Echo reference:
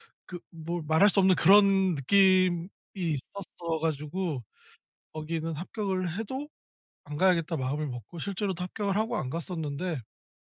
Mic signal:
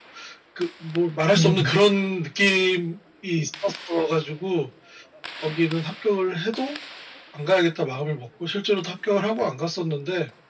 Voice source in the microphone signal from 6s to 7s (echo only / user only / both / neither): echo only